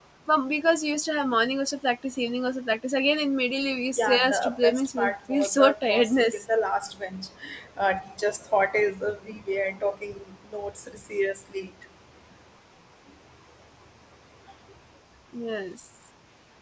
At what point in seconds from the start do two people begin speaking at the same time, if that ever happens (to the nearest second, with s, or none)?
4 s